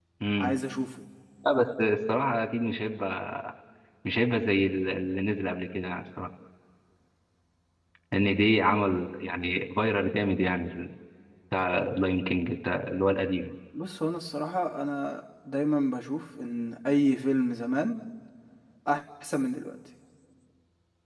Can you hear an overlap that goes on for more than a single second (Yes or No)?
No